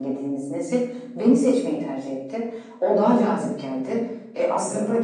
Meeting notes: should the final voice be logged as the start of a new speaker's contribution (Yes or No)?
No